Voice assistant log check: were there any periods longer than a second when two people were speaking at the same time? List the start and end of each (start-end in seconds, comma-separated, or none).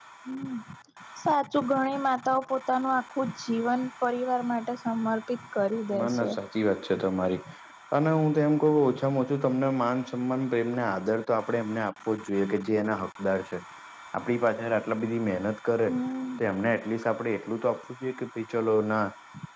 none